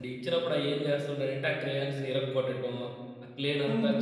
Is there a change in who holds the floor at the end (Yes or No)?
No